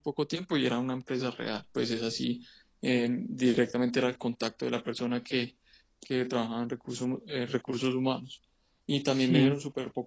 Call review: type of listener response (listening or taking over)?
listening